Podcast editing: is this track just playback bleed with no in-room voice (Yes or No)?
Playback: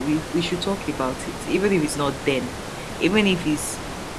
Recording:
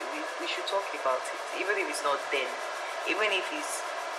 Yes